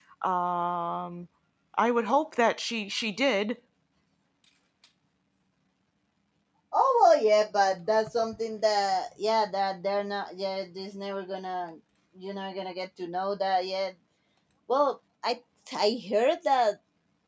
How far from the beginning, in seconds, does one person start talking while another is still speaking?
none

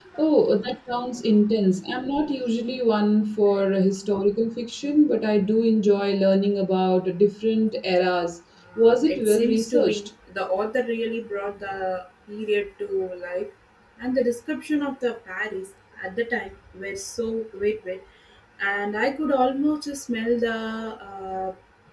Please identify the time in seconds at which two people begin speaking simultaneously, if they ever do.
8.7 s

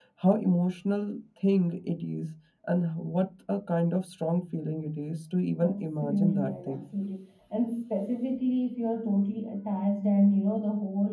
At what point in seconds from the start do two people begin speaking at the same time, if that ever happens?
5.6 s

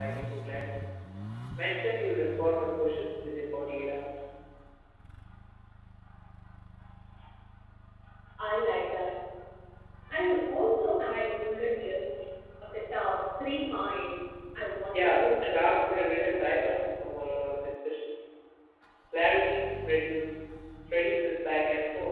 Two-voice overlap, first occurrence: 14.9 s

